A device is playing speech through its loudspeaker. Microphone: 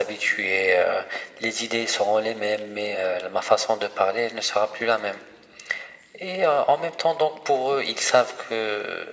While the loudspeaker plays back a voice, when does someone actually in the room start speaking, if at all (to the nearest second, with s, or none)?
none